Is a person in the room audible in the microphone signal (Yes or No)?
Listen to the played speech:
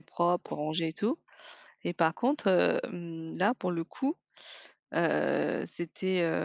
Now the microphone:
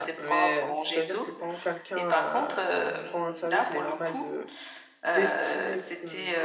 Yes